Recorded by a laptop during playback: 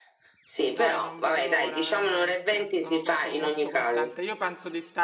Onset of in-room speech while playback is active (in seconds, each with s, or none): 0.7 s